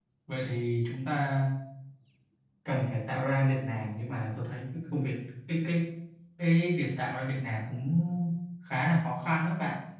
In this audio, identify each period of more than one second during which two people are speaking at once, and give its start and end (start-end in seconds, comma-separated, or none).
none